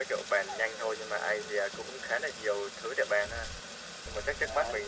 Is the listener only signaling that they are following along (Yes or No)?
Yes